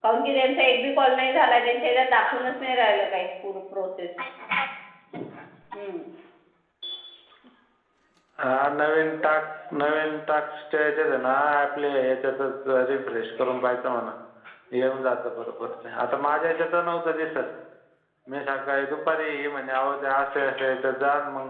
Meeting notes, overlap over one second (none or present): none